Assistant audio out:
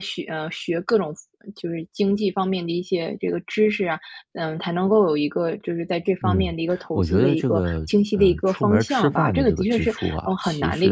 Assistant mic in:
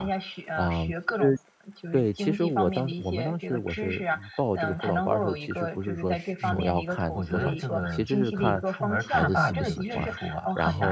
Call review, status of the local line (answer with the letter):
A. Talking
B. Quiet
A